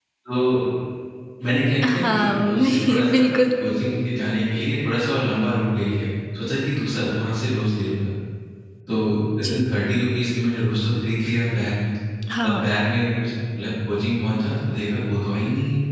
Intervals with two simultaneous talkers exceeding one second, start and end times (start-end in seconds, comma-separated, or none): 1.9-3.2